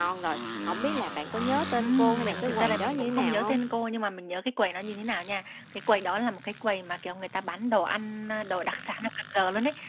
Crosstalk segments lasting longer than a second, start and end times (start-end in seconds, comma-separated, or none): 1.8-3.6